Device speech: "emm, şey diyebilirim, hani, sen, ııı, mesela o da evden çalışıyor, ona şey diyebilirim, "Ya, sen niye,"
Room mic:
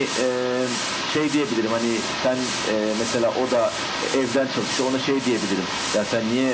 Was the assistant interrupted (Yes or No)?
No